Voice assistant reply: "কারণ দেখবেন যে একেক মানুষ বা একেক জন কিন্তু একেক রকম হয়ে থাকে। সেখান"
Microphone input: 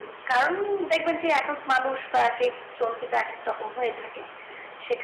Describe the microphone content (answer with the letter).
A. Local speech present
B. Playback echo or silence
B